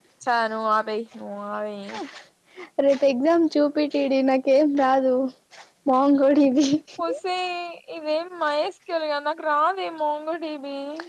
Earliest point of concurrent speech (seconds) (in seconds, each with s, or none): none